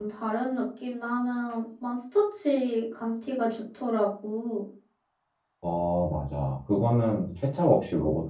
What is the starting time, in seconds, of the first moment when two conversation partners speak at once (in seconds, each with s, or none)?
none